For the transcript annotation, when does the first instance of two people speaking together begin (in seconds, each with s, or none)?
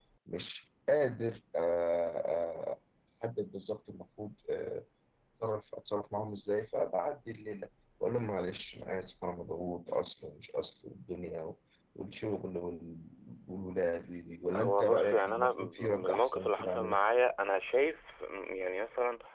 14.5 s